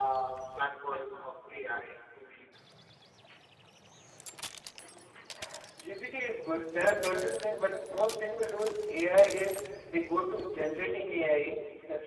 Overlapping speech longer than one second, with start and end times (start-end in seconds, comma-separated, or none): none